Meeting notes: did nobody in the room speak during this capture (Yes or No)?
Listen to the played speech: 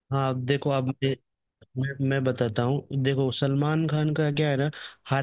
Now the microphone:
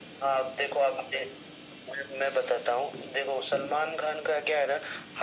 Yes